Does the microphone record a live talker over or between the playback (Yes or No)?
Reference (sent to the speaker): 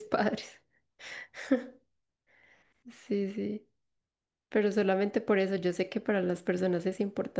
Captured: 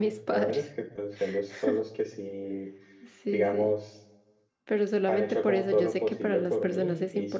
Yes